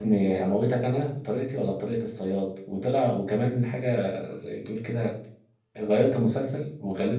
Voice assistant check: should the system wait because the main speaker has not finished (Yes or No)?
Yes